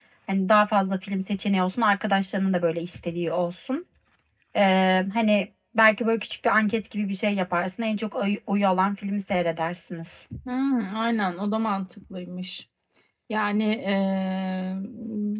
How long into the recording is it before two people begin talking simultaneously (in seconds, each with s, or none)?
none